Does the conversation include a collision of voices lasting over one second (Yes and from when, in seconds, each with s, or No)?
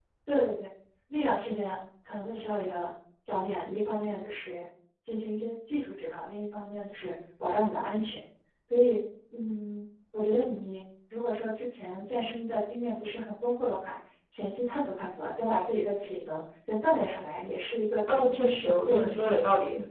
Yes, from 18.1 s